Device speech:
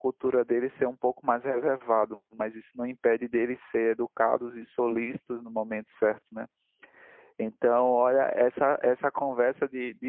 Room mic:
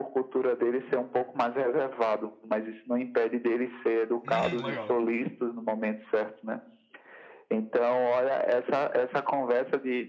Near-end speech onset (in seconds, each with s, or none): 4.2 s